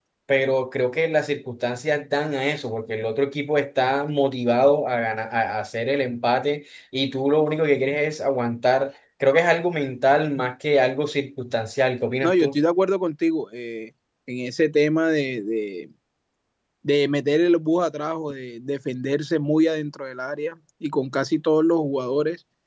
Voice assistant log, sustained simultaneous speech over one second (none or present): none